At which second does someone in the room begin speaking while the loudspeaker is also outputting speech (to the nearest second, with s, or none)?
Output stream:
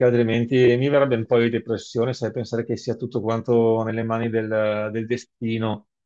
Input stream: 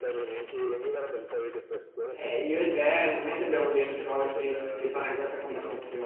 2 s